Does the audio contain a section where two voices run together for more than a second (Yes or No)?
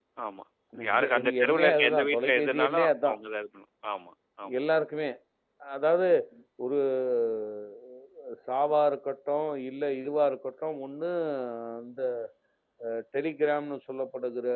Yes